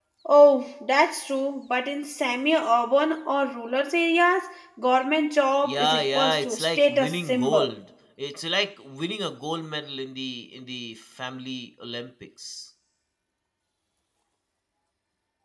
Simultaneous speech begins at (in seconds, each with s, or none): 5.6 s